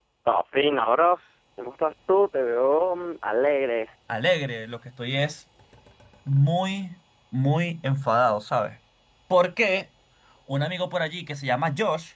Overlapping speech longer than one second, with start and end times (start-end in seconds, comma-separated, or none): none